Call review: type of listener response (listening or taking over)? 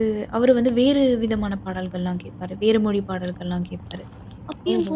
listening